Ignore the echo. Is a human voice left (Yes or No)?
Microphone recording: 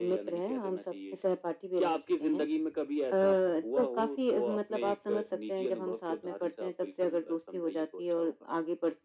No